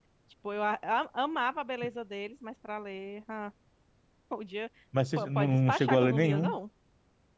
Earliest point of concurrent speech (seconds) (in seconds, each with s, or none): 5.2 s